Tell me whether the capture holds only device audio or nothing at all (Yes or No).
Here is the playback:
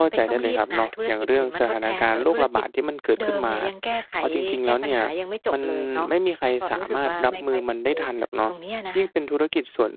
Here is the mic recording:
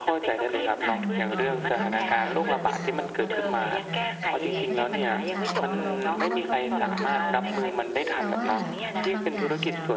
No